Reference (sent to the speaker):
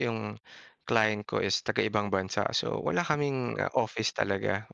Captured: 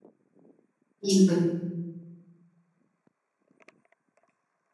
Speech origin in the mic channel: user only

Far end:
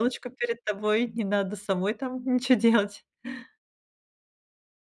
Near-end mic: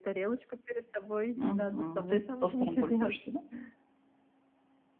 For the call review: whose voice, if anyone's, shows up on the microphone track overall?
both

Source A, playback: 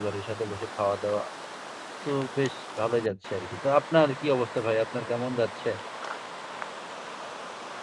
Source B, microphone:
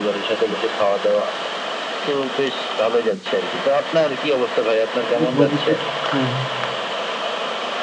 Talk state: both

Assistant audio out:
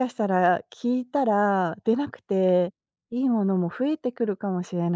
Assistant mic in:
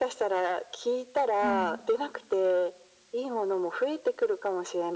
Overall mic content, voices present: both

